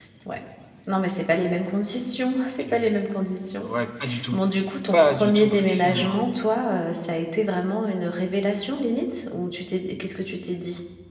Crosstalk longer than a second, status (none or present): present